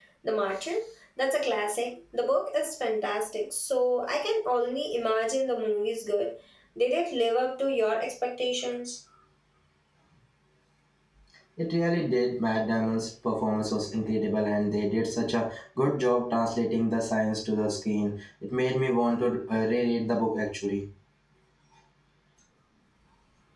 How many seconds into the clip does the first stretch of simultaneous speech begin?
none

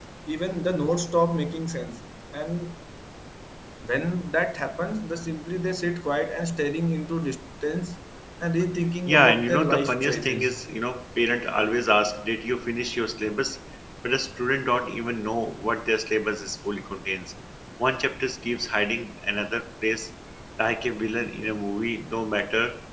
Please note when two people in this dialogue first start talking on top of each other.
9.0 s

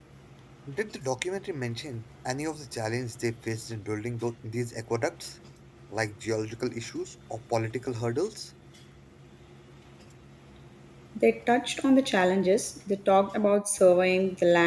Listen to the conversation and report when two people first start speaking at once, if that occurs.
none

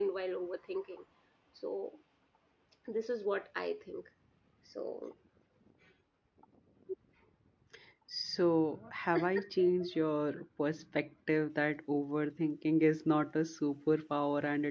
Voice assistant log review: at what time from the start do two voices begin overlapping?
none

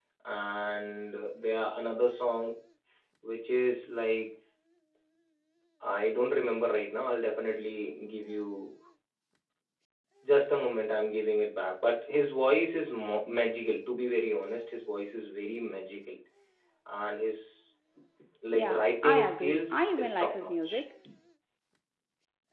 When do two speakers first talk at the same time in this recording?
18.5 s

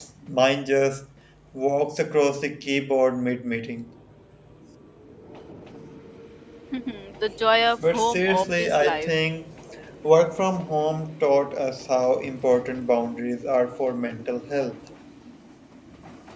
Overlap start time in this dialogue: 7.8 s

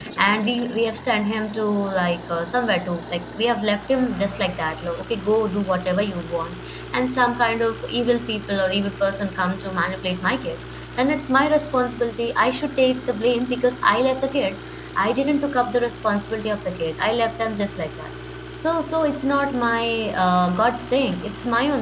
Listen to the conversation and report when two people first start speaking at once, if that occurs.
none

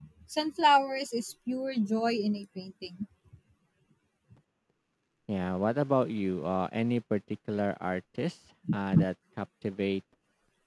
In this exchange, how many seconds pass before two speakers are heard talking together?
none

